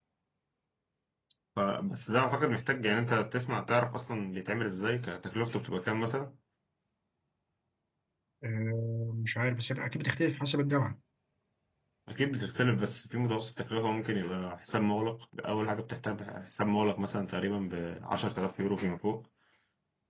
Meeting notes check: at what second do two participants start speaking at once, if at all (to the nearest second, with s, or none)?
none